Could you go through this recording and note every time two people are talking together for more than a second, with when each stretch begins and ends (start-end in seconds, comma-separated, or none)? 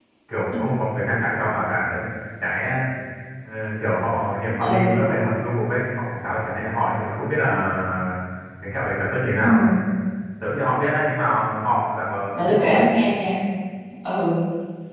none